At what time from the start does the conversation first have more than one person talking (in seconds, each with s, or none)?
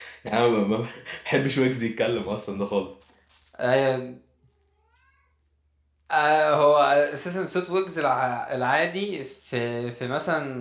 none